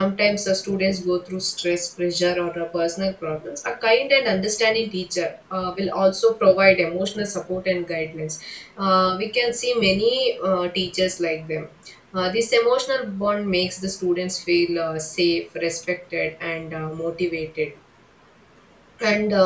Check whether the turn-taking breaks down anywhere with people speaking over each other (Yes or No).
No